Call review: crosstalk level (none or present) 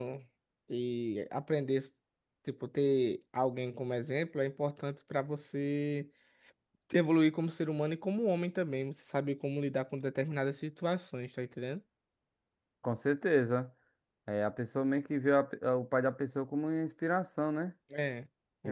none